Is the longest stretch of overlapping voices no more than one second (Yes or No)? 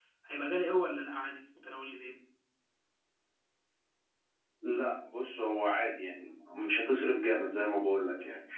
Yes